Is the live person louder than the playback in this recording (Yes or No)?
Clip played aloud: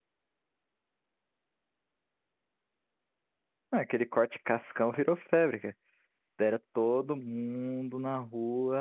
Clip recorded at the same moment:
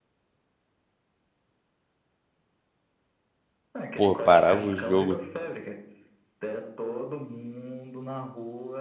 Yes